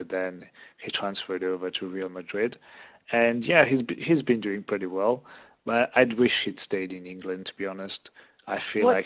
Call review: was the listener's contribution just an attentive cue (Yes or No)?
No